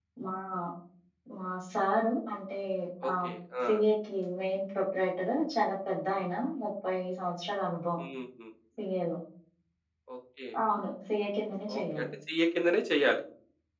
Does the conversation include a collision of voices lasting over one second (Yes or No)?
No